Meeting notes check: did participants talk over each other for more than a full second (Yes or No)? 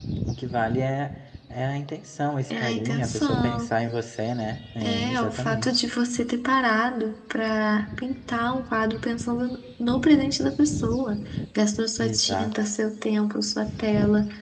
Yes